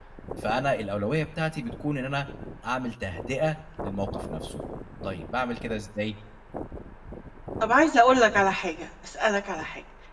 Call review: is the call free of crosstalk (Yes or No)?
Yes